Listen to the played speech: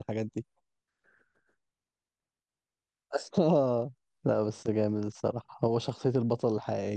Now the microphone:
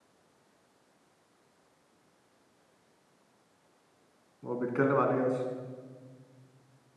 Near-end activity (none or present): present